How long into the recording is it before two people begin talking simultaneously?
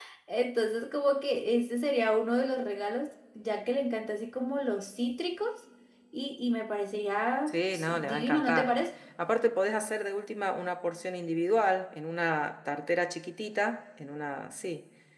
7.5 s

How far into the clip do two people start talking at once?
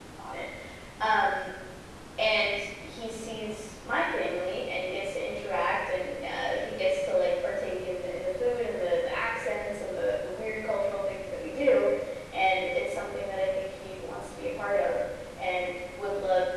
none

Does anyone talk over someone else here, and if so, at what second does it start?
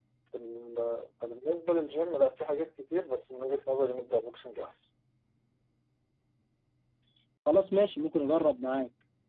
none

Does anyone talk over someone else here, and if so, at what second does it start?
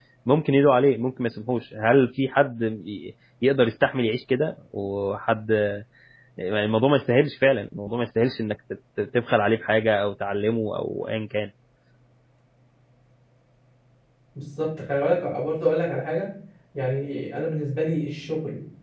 none

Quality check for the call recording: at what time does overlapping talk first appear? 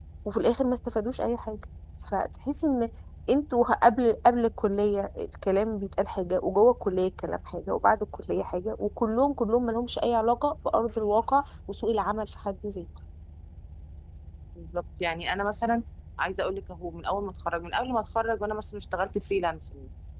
none

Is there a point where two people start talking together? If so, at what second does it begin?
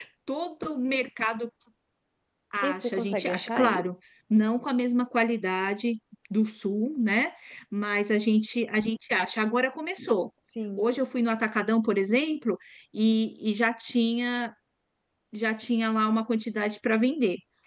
2.6 s

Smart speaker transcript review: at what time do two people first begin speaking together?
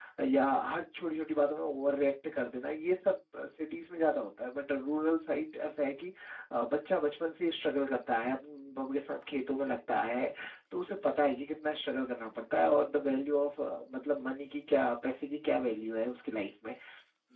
none

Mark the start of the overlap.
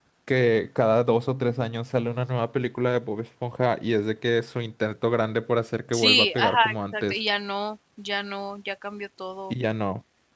5.9 s

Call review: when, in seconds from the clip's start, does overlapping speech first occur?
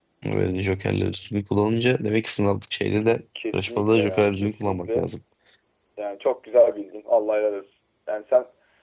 3.4 s

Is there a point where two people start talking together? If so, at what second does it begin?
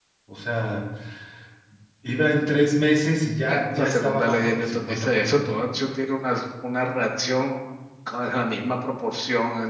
3.5 s

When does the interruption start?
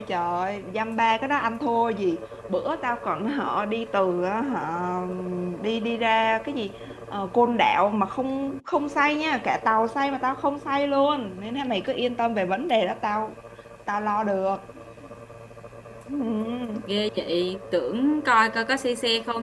none

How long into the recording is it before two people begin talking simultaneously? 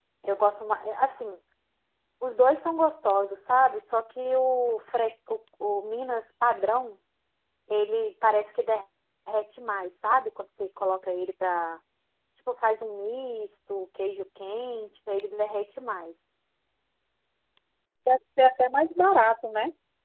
none

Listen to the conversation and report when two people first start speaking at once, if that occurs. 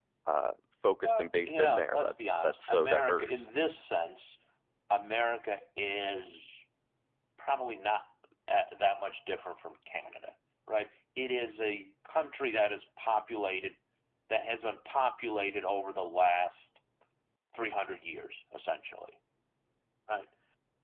1.0 s

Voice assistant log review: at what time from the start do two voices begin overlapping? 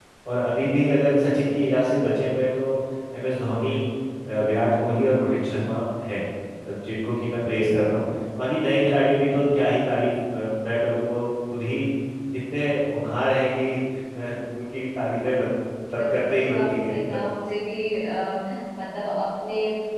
16.0 s

